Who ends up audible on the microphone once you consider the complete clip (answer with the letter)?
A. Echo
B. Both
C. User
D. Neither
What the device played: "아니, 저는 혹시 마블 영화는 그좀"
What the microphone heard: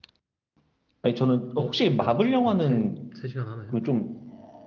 B